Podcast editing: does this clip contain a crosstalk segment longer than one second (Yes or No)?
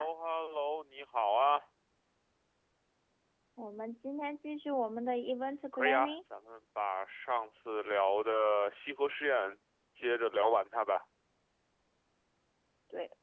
No